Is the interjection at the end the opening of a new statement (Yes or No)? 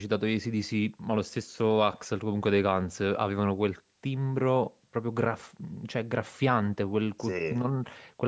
No